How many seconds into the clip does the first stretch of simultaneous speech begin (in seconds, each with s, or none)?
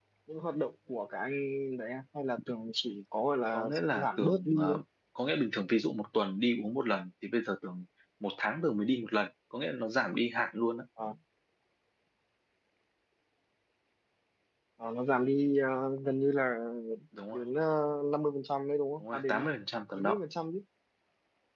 3.5 s